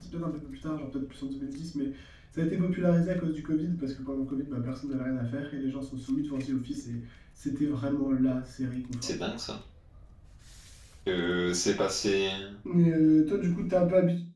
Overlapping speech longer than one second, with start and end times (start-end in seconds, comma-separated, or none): none